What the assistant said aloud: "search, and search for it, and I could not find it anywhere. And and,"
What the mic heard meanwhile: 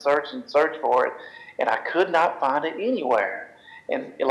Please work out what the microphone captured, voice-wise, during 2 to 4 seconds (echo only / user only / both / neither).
echo only